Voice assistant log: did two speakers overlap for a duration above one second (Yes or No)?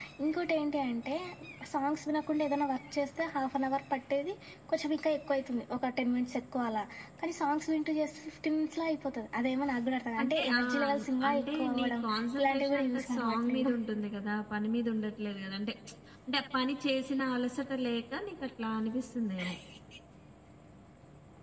Yes